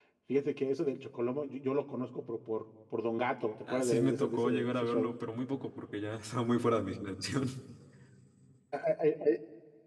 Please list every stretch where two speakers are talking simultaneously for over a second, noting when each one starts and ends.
3.6-5.1

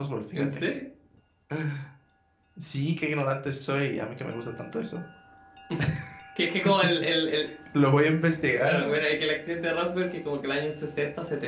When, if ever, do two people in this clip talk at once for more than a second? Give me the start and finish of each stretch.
none

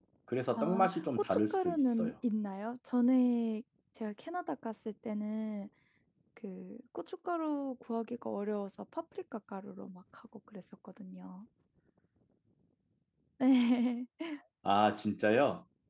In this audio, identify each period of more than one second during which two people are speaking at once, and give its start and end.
0.6-2.1

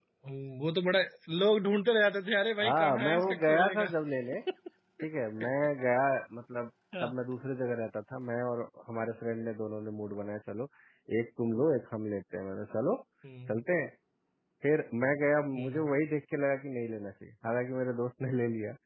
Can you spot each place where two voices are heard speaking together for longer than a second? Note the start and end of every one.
2.6-3.9

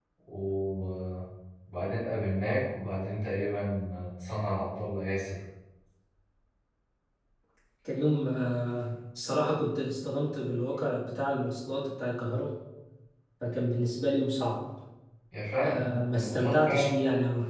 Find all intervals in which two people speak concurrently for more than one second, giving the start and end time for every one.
15.6-17.0

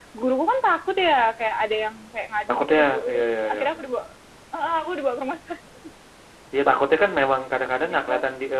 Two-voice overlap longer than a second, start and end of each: 2.5-3.9

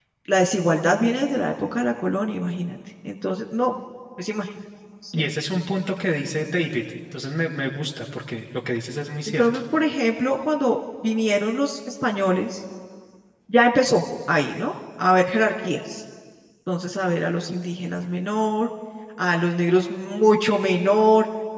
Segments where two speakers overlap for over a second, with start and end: none

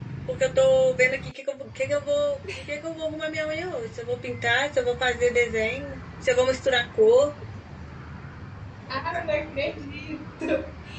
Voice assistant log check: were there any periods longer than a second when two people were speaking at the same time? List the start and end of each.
none

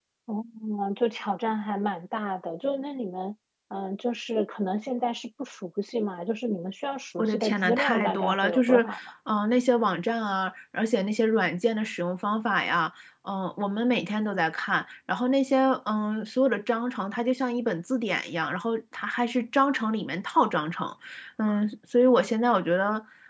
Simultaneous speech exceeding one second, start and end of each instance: 7.2-8.8

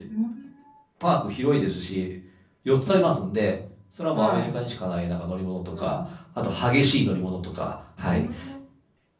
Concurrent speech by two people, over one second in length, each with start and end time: none

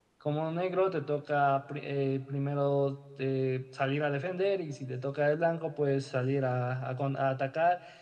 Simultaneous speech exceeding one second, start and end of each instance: none

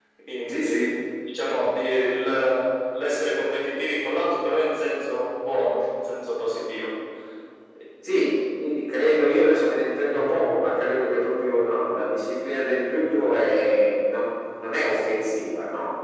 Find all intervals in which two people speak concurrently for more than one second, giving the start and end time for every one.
none

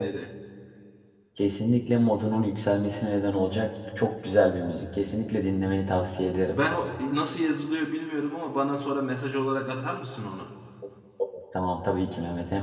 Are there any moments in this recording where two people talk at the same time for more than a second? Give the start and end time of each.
none

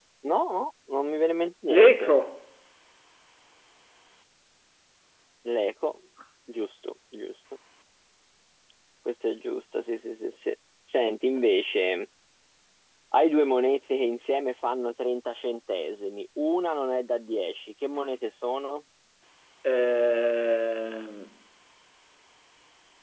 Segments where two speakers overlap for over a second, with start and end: none

